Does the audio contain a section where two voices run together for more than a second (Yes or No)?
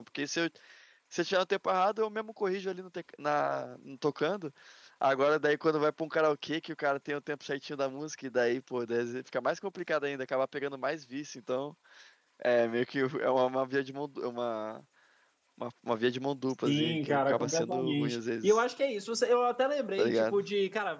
Yes